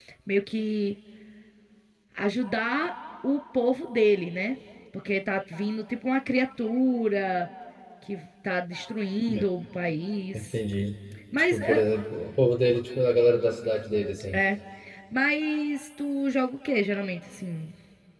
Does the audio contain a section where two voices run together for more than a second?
No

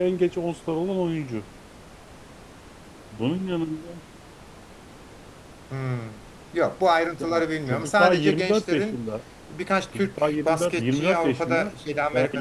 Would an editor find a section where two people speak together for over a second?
Yes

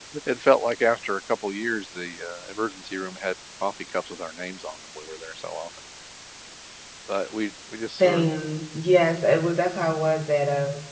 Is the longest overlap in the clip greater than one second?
No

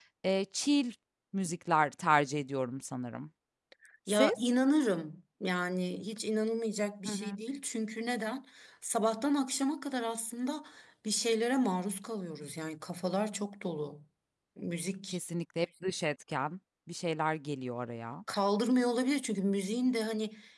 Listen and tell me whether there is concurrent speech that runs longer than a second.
No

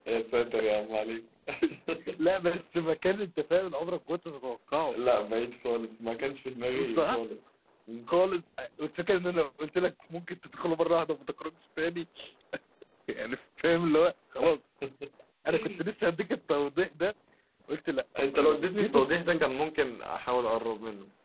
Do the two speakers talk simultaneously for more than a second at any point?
Yes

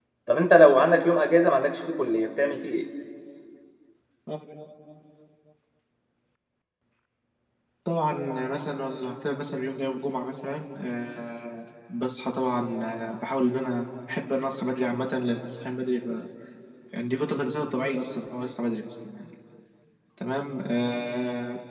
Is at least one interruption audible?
No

